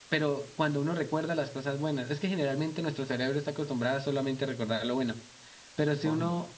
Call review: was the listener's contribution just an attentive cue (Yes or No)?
Yes